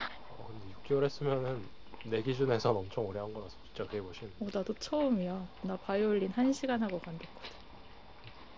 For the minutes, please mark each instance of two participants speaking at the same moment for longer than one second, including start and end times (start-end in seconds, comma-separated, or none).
none